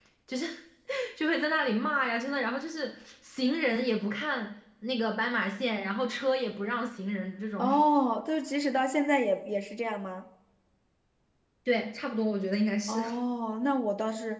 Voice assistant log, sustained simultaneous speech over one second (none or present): none